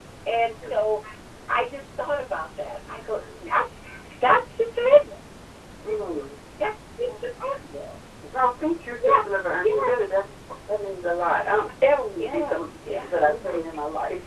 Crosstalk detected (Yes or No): Yes